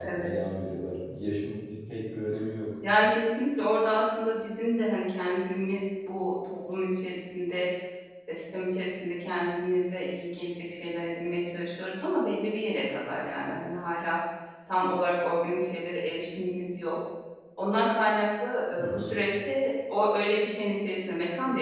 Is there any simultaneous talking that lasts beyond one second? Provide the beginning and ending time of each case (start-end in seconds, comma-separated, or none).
none